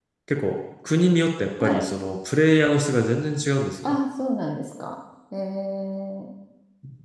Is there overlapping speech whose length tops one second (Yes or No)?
No